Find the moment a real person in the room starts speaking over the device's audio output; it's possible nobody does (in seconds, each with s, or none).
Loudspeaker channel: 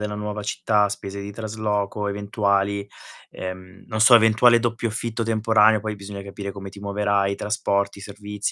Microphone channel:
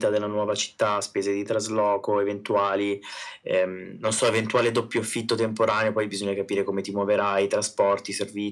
none